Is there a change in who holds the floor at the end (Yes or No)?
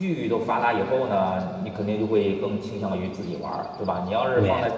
No